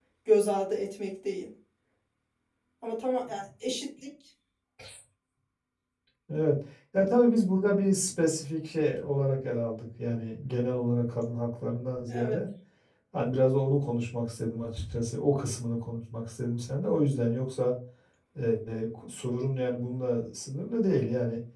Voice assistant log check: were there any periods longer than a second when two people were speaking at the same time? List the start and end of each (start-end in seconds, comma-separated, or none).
none